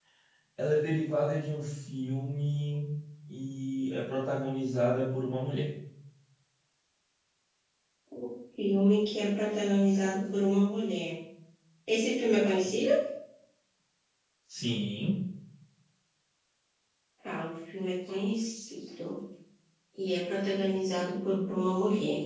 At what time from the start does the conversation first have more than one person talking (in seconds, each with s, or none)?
none